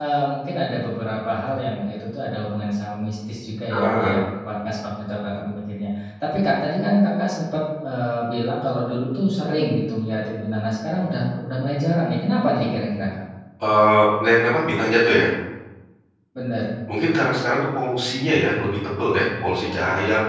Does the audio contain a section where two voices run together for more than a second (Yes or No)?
No